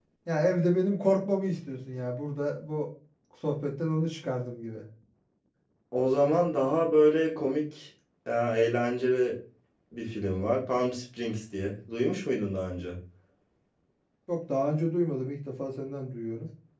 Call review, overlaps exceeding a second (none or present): none